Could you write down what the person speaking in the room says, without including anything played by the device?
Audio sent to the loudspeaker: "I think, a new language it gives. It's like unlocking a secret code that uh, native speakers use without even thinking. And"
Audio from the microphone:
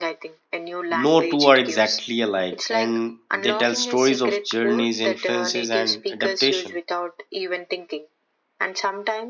No two are exactly alike, and they tell stories of journeys, influences, and adaptation.

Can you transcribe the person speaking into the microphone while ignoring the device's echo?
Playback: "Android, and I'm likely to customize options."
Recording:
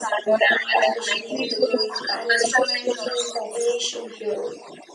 especially with the growing Spanish speaking population here.

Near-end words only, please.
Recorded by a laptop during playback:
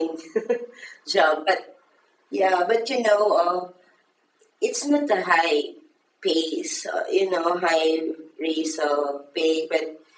none

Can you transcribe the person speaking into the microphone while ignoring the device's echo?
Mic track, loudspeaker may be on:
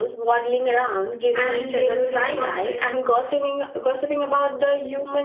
And they would respond with,

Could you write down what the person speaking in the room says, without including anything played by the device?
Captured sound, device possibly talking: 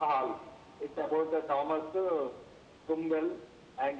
none

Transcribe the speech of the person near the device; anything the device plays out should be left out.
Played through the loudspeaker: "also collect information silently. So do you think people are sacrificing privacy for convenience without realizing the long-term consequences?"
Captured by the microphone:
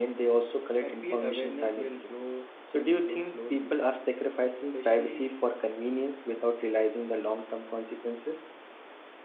I feel awareness will grow will grow slowly, especially

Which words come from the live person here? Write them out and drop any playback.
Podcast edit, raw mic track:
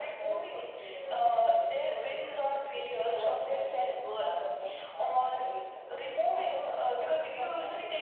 none

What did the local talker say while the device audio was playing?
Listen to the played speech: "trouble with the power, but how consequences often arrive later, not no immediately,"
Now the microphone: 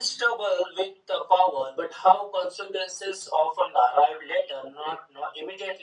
none

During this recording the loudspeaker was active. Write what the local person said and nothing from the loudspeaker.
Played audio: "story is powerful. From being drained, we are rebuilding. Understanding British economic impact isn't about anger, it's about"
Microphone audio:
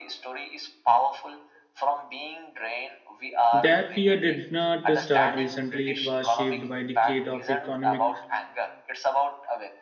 that fear did not start recently. It was shaped by decade of economic

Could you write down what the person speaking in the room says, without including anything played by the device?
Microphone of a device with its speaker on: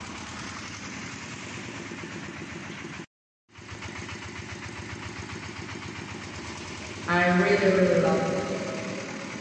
I really, really love it.

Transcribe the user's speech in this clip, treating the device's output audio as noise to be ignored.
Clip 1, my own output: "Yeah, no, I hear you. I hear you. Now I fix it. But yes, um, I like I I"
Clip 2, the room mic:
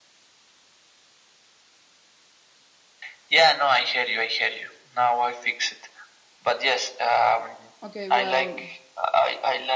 Okay, well,

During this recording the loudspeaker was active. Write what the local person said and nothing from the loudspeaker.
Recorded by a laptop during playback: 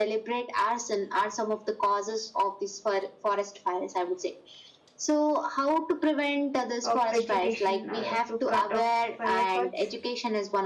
of vegetation uh, to cut off fire paths

